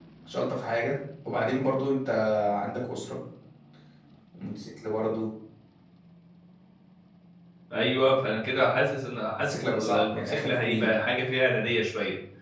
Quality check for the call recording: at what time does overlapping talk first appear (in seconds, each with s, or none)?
9.4 s